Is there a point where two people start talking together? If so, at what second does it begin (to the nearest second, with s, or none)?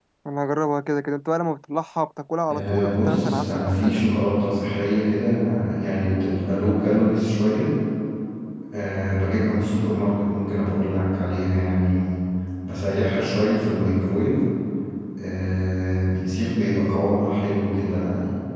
2 s